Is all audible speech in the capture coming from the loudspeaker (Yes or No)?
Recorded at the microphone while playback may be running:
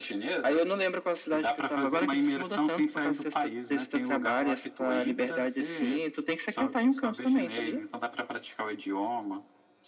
Yes